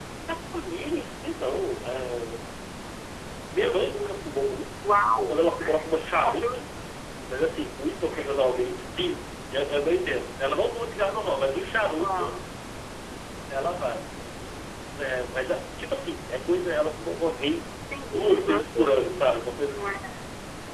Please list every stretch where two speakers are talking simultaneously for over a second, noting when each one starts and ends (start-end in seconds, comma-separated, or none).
18.1-19.9